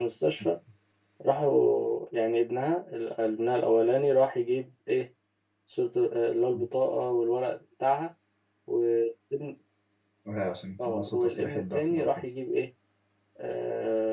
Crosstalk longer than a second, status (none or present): present